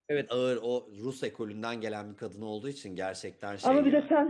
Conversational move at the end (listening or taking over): taking over